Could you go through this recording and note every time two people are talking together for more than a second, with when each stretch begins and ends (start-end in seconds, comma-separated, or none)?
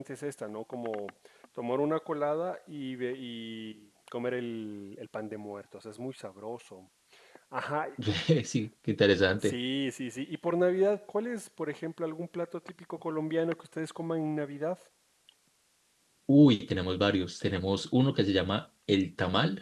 none